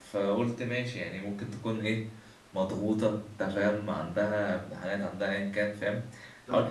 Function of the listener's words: taking over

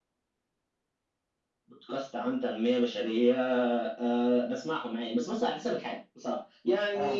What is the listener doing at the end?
listening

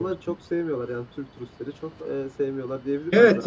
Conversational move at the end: taking over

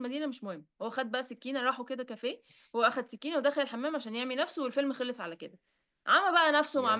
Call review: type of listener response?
listening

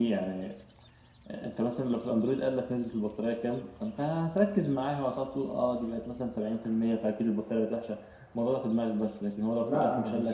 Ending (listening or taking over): taking over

